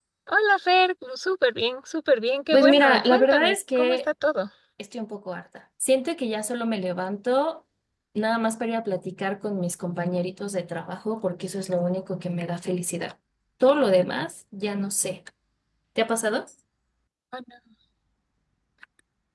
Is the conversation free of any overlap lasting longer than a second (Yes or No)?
No